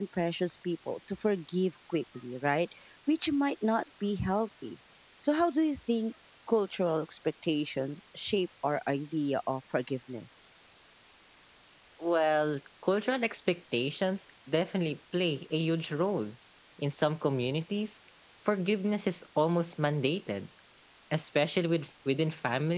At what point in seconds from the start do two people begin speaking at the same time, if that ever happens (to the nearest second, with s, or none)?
none